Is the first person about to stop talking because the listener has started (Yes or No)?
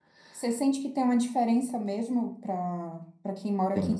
No